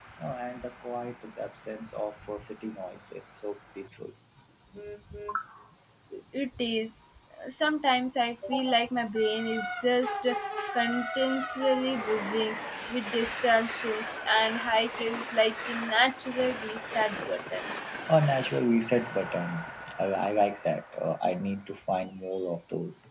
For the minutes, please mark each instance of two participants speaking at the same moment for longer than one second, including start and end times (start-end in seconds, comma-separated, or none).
none